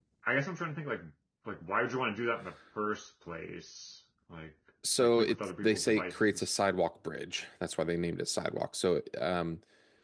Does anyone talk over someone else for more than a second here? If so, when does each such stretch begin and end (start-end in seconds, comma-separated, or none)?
5.0-6.5